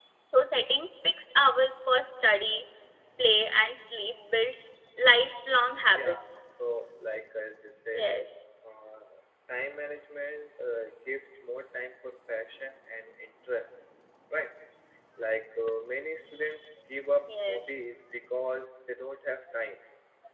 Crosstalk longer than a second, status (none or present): none